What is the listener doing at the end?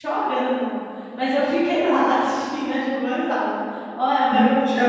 taking over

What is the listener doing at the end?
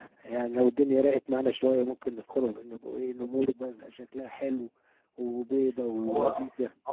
taking over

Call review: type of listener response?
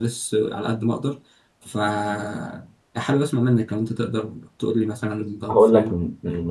taking over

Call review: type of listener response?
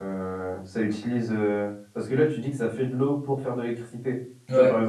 listening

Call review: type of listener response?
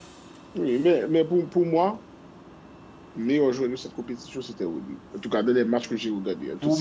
taking over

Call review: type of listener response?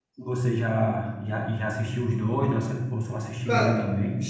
taking over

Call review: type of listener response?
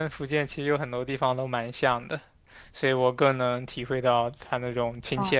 taking over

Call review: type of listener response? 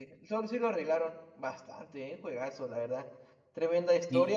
listening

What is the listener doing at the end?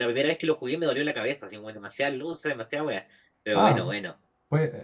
taking over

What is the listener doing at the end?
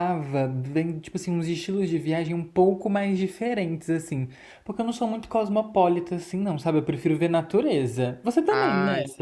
taking over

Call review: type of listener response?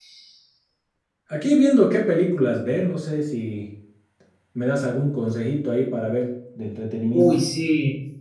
taking over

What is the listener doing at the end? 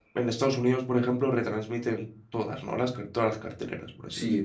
taking over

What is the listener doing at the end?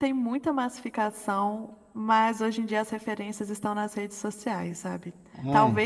listening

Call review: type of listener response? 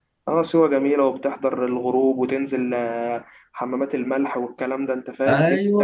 taking over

